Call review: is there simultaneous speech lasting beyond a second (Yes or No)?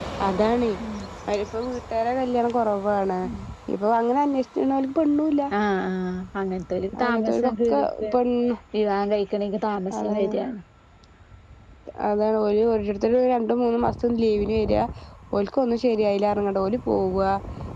No